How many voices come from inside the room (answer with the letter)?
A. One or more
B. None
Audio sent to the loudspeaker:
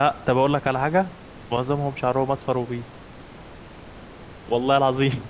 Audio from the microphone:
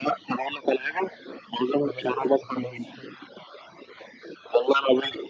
A